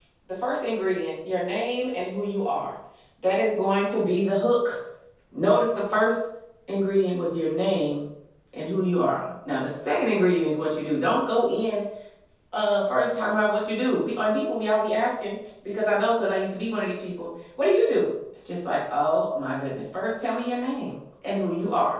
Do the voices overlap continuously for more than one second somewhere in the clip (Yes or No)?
No